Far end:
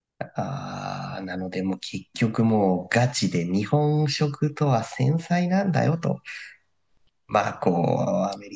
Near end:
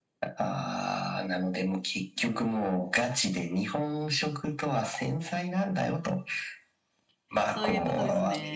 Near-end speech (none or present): present